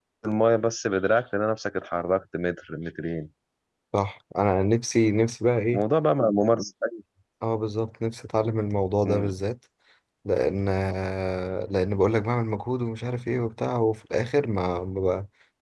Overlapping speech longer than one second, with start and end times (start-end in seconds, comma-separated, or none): none